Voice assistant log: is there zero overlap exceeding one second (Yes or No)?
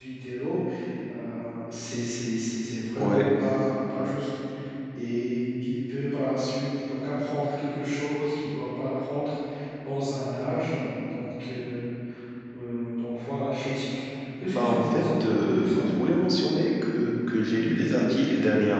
No